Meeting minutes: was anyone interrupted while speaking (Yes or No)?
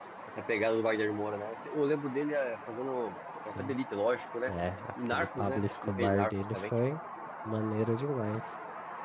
Yes